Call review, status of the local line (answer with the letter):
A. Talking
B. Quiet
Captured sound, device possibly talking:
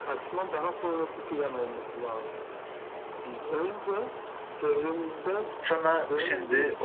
A